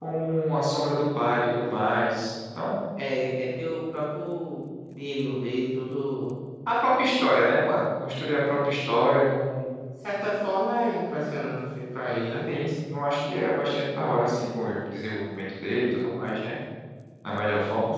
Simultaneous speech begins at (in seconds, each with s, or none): none